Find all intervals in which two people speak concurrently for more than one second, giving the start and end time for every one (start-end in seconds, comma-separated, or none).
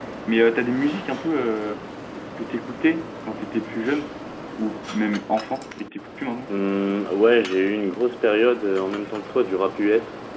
none